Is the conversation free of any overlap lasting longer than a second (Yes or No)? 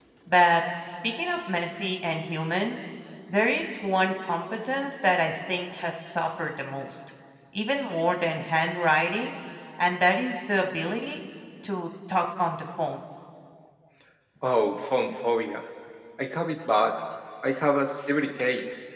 Yes